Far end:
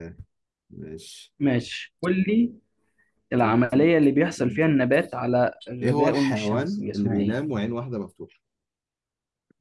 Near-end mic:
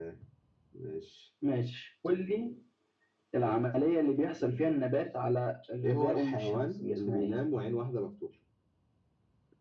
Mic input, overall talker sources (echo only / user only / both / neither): echo only